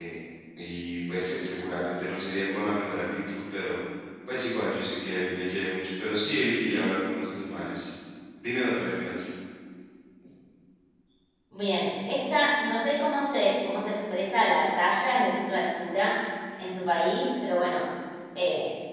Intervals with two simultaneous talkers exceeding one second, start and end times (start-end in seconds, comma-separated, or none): none